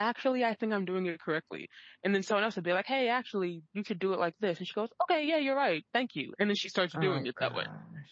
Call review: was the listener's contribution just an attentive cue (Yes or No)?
No